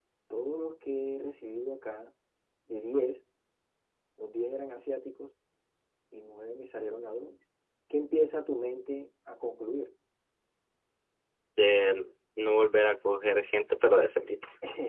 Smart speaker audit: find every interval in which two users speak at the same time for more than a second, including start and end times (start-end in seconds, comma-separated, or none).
none